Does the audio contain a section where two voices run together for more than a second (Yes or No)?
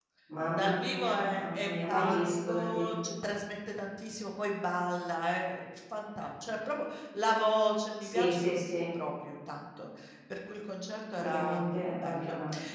Yes